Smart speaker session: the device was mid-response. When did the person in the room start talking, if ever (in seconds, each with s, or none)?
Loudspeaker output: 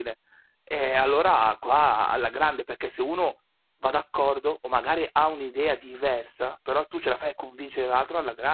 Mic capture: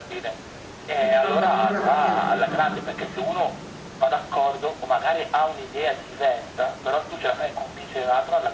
1.0 s